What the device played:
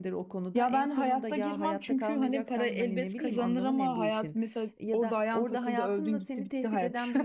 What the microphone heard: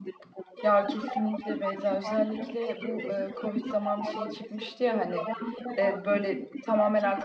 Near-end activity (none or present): present